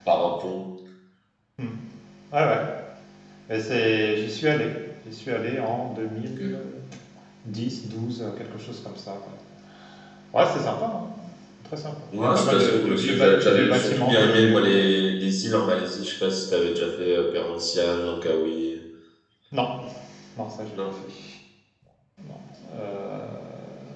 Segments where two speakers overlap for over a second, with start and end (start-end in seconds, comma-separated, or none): 12.1-14.9